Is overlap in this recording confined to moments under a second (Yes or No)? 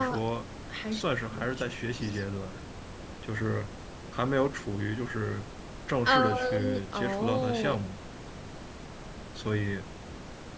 No